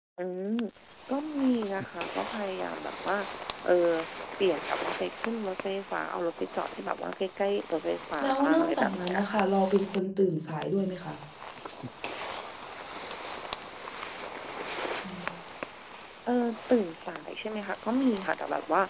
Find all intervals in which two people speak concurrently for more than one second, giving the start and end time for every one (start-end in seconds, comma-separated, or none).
8.2-9.5